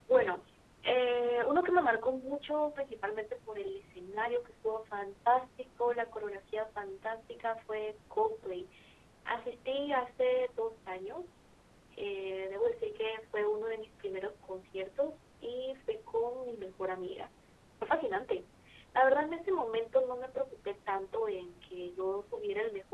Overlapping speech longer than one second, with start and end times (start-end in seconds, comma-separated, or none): none